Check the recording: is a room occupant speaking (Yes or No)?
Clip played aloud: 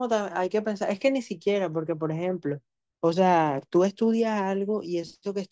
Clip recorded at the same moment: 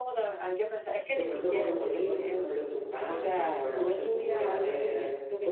Yes